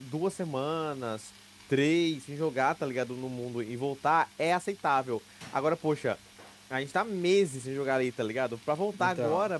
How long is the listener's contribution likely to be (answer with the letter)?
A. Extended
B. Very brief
B